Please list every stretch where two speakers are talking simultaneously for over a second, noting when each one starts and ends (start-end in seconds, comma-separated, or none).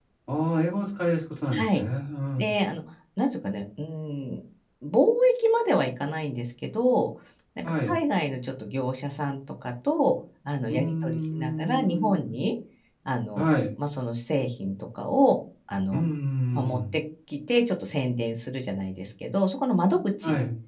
10.7-12.3